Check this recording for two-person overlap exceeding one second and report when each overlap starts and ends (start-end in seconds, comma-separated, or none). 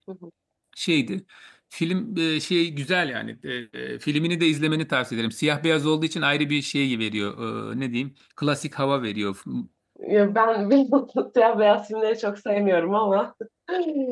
none